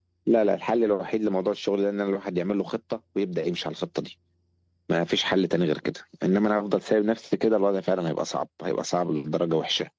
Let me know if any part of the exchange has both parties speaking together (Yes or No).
No